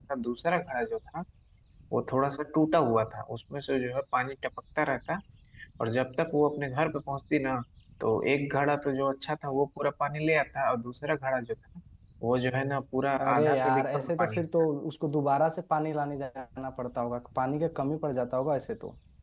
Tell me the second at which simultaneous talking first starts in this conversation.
13.2 s

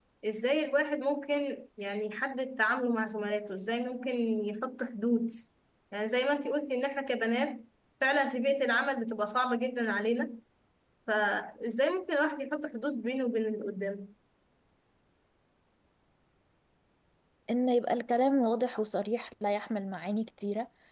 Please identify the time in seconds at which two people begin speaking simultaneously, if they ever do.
none

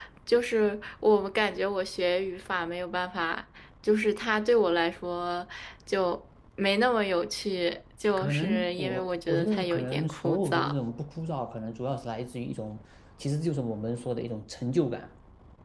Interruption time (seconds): 8.2 s

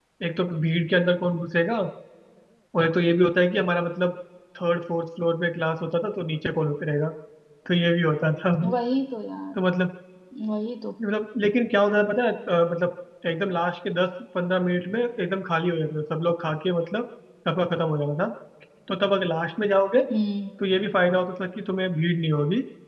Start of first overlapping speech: none

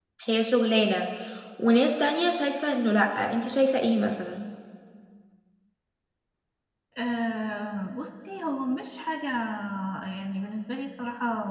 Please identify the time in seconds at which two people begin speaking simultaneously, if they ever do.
none

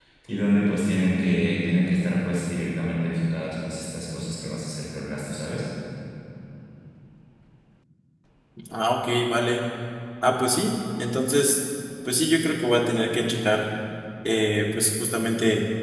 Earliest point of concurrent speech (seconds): none

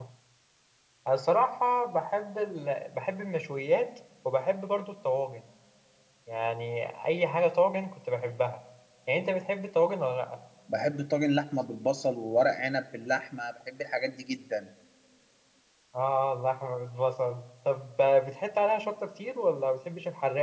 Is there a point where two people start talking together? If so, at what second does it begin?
none

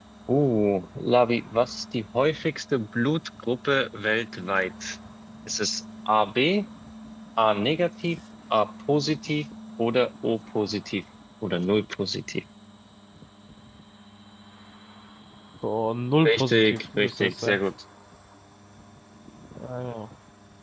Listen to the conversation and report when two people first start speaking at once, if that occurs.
16.2 s

